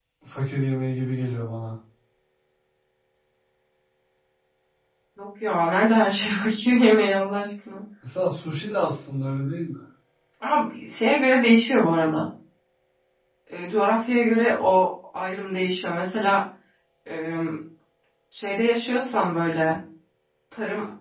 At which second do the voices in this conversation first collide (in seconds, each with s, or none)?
none